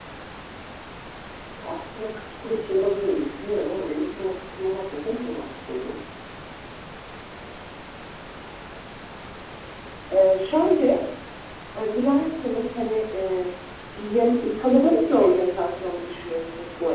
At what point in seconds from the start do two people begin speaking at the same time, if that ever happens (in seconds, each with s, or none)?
none